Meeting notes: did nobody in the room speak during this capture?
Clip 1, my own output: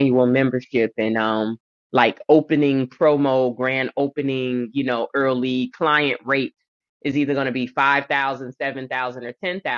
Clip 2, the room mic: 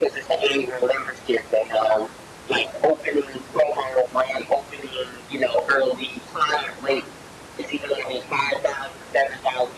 Yes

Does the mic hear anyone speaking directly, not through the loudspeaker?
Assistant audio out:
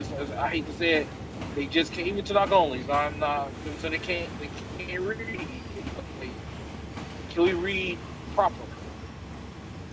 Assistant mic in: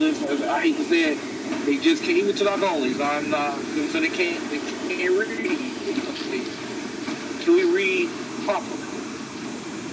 No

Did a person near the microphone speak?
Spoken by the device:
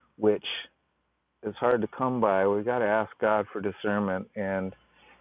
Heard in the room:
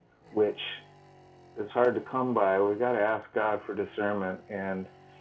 No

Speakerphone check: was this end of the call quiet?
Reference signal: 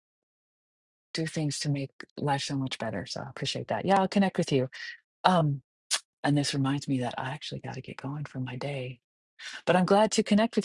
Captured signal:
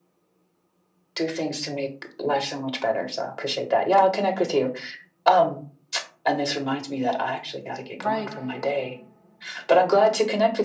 No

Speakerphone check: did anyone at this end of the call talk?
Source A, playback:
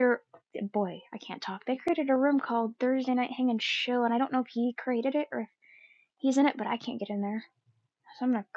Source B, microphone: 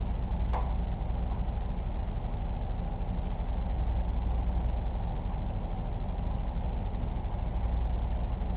No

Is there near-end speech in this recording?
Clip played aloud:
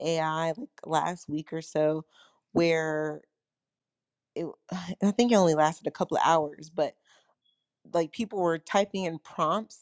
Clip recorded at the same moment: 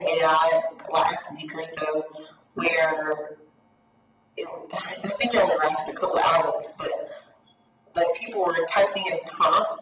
No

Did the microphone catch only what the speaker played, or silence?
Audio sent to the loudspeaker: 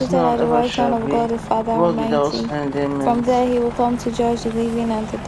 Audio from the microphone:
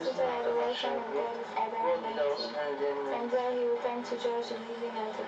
Yes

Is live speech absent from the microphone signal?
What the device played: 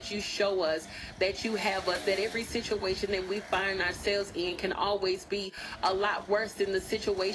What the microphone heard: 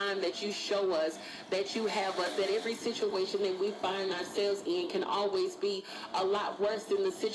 Yes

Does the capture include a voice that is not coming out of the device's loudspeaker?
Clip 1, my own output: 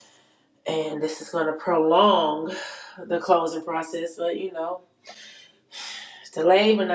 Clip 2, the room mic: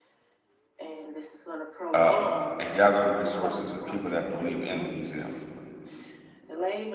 Yes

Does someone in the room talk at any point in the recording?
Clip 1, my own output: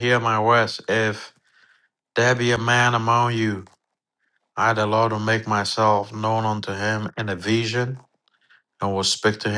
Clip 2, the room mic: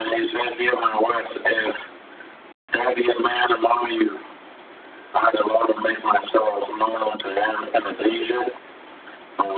No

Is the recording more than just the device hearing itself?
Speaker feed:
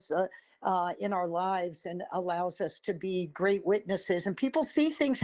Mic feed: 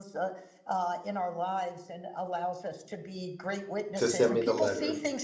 Yes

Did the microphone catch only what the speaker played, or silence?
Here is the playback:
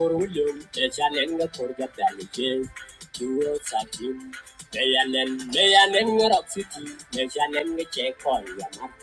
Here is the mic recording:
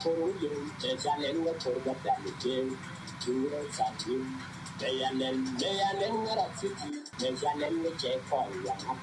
Yes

